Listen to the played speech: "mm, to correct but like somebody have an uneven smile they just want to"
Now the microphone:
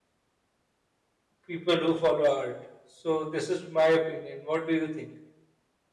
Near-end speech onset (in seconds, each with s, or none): 1.4 s